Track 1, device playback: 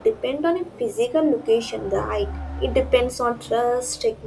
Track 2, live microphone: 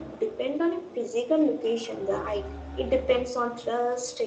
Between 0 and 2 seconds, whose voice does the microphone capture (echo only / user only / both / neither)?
echo only